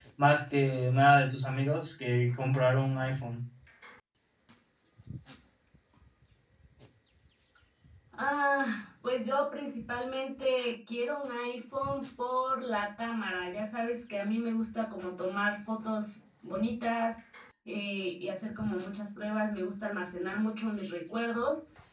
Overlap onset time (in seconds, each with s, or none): none